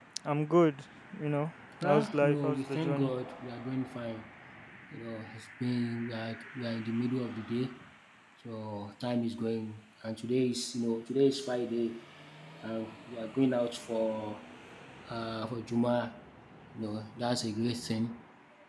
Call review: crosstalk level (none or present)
present